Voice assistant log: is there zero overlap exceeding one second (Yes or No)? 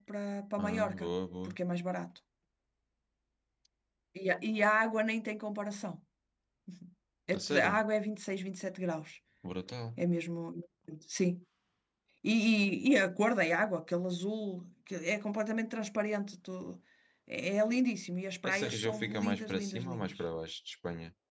No